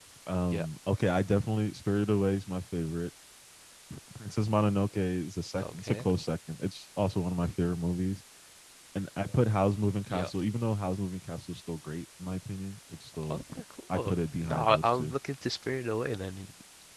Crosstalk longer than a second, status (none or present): present